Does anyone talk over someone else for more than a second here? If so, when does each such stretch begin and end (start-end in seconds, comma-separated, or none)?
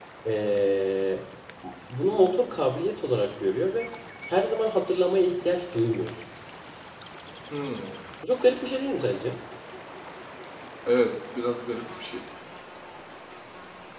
none